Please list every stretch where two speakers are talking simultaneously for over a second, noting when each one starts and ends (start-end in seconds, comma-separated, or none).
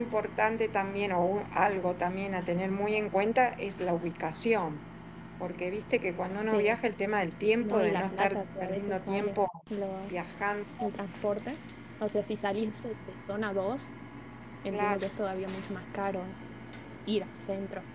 7.6-9.4